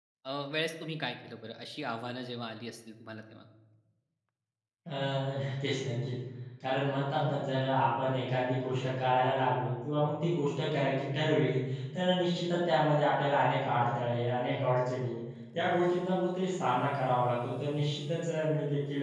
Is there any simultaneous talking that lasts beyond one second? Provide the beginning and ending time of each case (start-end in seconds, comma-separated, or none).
none